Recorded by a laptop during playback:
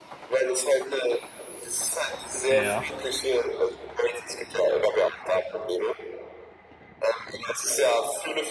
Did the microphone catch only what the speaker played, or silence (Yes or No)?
No